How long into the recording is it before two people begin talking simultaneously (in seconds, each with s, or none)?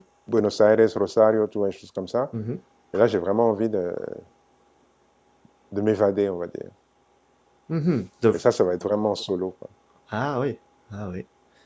none